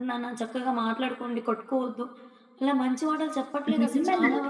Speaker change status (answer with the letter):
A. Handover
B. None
A